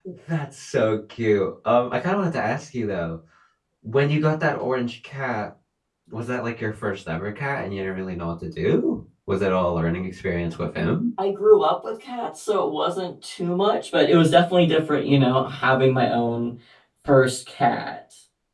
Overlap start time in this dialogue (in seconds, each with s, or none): none